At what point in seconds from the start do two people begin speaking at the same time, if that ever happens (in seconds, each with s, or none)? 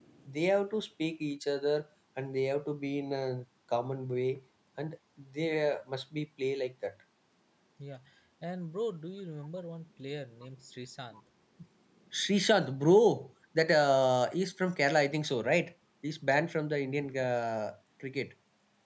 none